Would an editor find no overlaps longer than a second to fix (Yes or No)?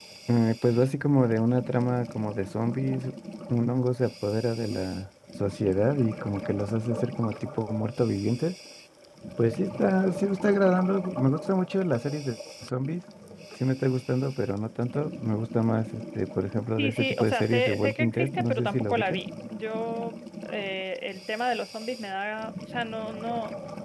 No